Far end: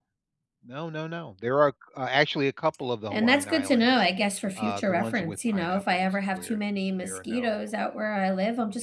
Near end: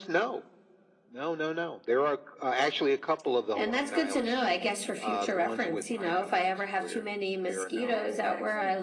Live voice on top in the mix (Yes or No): No